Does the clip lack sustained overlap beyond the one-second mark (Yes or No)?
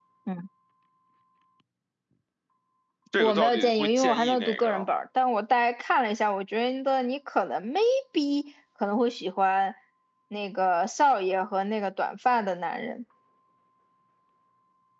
No